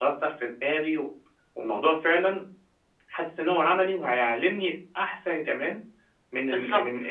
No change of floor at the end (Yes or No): Yes